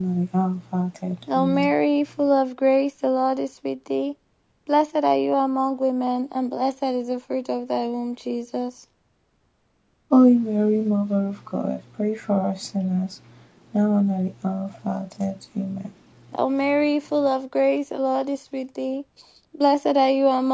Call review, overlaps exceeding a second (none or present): none